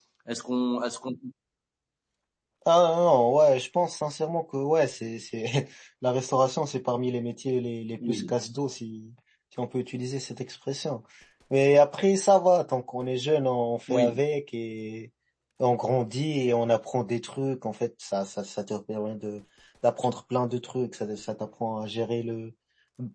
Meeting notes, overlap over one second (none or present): none